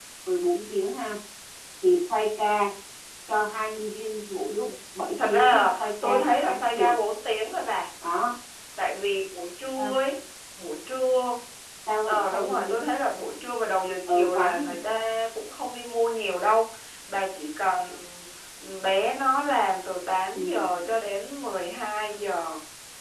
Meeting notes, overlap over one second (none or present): present